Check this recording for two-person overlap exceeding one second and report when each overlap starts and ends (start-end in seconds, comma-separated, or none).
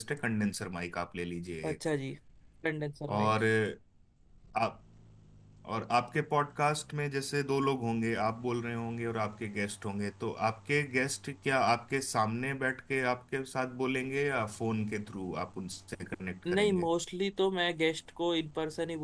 none